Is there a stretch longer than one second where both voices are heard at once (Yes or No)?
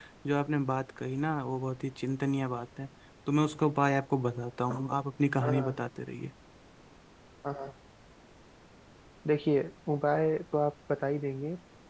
No